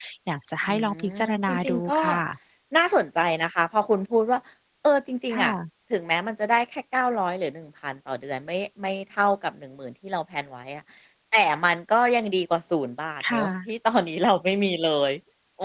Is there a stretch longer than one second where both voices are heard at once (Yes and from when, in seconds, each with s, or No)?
Yes, from 0.7 s